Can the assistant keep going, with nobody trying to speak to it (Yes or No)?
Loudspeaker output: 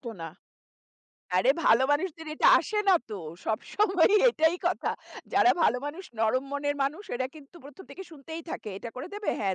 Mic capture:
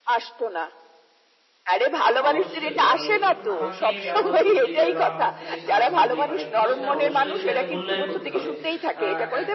No